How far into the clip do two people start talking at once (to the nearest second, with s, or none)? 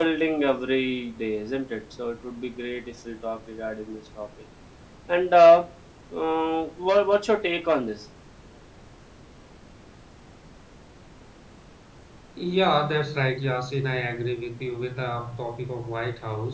none